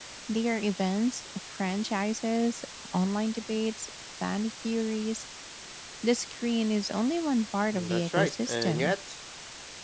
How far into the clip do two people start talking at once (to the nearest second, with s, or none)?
8 s